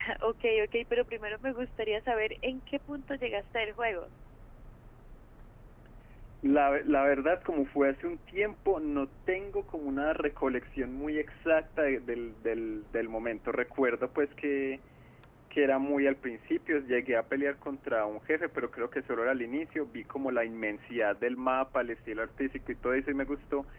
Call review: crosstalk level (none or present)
none